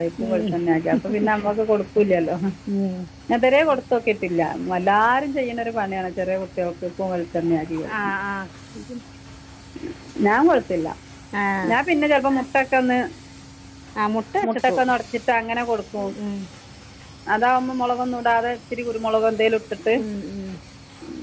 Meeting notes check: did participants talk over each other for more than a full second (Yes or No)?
No